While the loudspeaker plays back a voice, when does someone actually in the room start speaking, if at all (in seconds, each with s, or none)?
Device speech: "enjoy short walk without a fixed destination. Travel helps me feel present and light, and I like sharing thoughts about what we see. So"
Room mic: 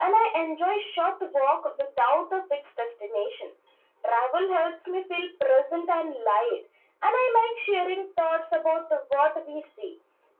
none